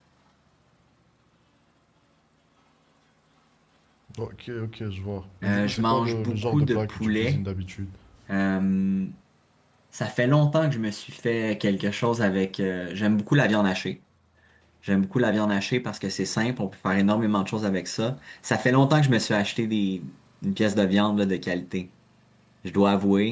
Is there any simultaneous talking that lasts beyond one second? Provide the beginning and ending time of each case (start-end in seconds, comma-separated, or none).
5.4-7.4